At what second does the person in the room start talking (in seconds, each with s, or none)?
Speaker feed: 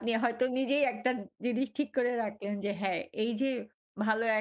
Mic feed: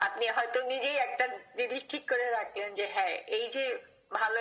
none